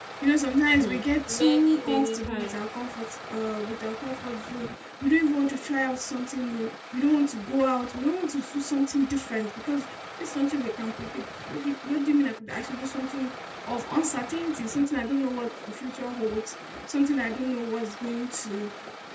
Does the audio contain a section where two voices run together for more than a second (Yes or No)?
Yes